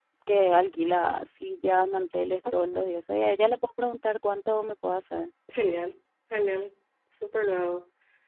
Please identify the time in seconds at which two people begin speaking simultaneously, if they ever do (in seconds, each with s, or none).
none